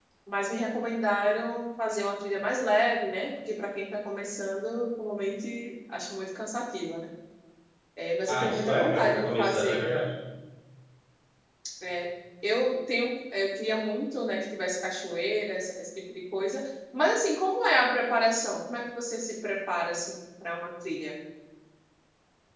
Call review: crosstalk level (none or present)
present